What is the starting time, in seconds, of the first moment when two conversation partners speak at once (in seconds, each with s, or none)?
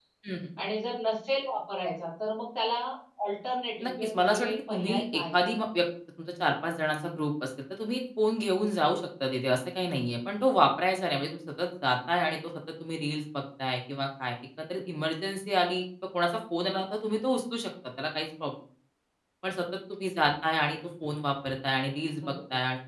3.8 s